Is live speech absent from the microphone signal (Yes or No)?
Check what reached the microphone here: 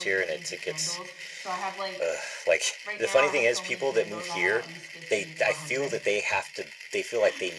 No